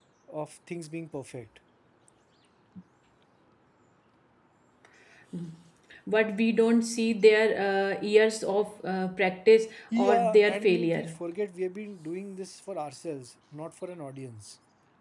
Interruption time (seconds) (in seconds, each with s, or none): 9.9 s